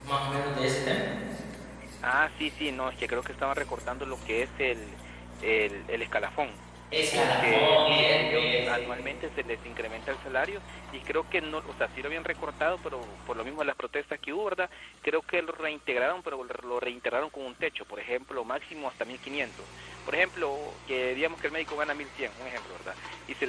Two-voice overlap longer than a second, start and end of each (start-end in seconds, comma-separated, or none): 7.1-8.7